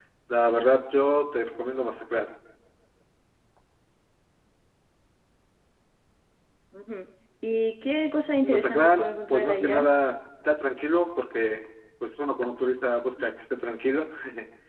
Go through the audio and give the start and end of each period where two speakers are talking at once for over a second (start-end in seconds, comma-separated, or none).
8.4-9.8